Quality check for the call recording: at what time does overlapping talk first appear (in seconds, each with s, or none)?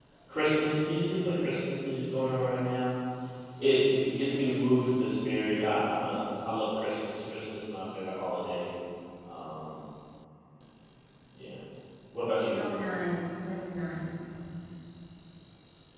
none